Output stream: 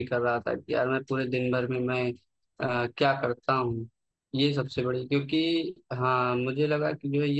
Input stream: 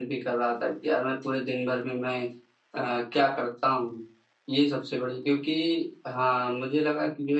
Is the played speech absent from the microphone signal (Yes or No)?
No